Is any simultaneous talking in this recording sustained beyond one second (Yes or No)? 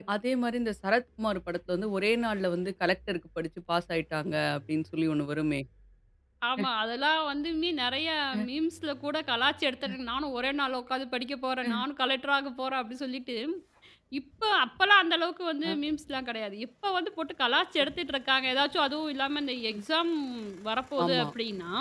No